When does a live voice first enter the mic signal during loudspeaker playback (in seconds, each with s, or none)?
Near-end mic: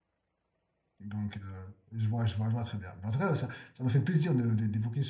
1.0 s